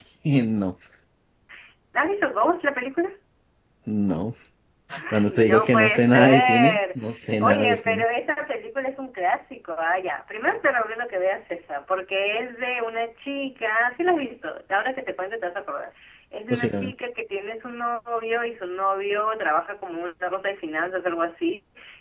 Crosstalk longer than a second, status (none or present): present